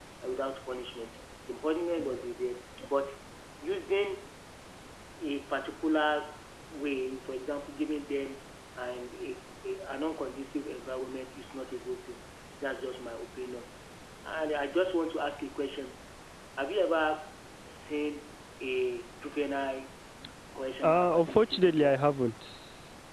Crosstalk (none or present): present